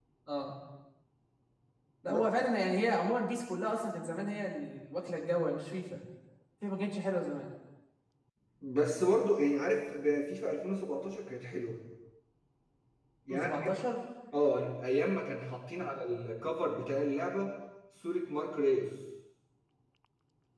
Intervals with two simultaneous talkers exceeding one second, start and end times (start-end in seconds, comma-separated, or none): none